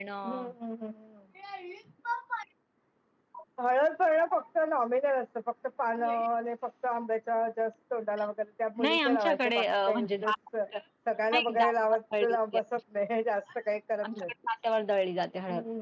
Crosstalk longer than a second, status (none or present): present